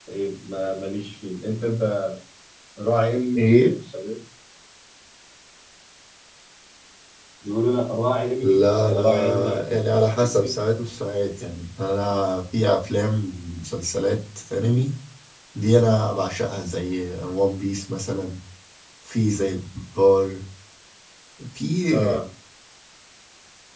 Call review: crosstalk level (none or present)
present